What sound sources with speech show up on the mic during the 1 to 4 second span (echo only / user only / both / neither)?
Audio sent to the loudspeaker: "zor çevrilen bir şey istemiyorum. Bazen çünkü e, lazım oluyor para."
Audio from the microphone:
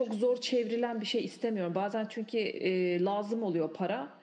echo only